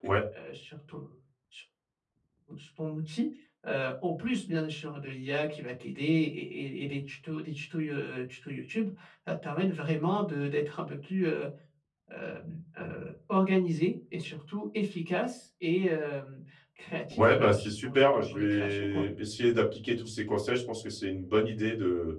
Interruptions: present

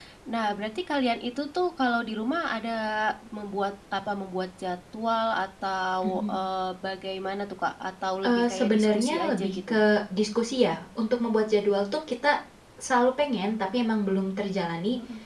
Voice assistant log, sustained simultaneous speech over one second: present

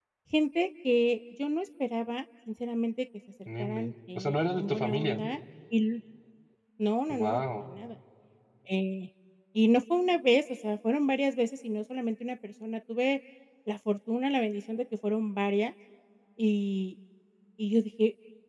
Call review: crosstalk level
present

